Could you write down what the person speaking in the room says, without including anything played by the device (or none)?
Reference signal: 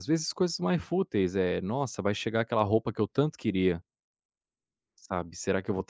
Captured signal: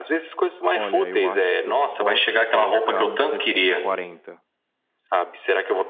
Olha, eu acho que eu posso colocar um 60, 40